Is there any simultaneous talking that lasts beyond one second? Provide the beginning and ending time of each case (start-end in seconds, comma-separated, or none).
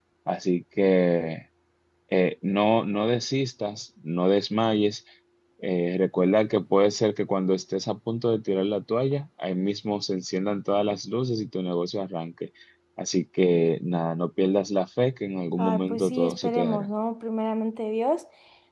15.6-16.9